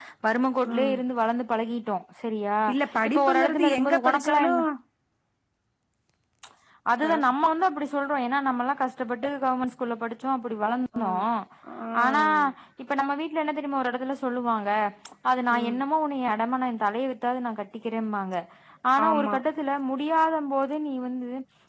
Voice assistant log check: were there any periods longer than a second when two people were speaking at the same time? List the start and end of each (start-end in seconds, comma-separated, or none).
3.1-4.5